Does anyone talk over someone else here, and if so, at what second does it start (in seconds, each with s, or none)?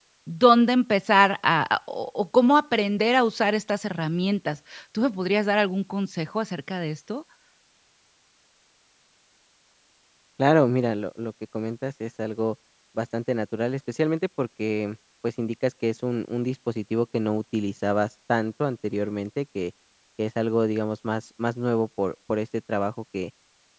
none